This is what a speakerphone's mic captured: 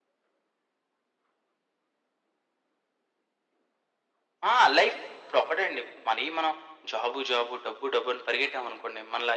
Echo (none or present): present